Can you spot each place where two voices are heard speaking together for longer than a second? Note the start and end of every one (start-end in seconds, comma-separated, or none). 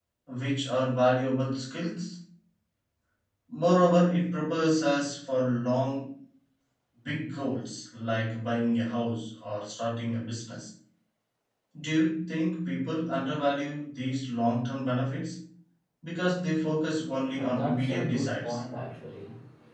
17.3-18.6